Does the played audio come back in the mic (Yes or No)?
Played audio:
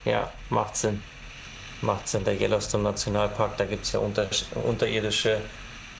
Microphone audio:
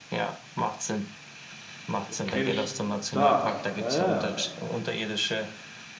Yes